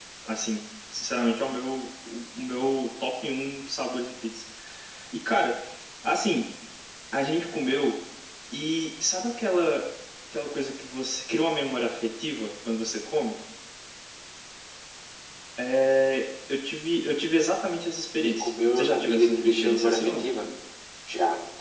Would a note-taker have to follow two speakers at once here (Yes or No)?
Yes